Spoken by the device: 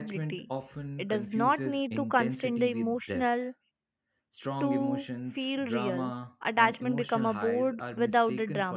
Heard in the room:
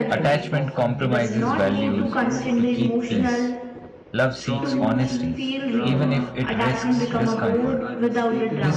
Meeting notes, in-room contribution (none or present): present